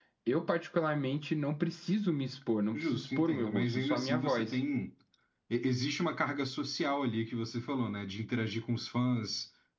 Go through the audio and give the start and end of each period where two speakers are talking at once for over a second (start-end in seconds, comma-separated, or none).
2.7-4.5